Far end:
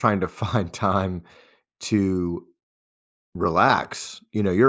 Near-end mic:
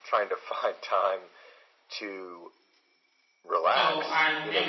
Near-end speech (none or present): present